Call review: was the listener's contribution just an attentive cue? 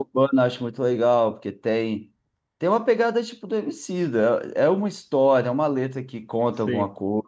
Yes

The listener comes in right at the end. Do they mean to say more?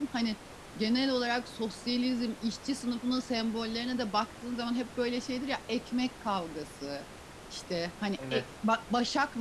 No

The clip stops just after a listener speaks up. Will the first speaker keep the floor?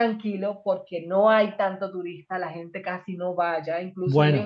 Yes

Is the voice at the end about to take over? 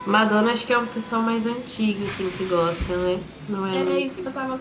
Yes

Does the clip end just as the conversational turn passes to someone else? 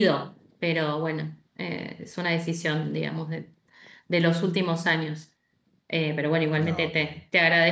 No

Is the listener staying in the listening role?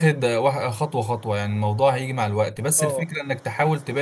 Yes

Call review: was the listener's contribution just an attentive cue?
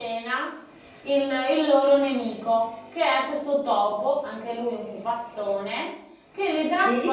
Yes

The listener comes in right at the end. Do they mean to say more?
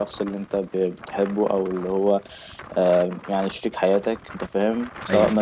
No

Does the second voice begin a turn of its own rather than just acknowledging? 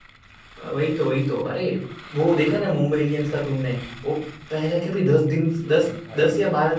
No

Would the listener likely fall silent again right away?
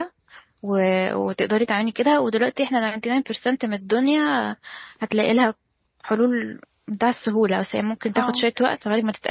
Yes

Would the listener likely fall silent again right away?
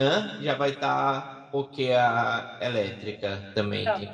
No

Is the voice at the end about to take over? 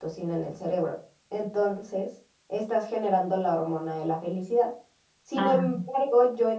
No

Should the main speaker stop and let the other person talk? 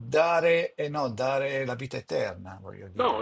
Yes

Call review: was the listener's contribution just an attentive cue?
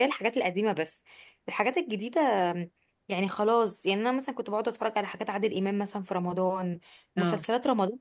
Yes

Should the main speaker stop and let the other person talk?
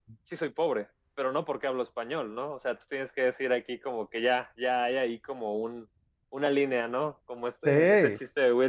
No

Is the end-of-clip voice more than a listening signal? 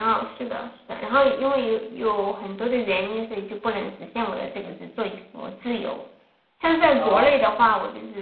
No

